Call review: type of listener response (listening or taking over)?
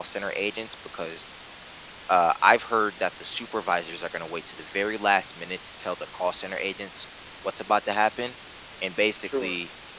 listening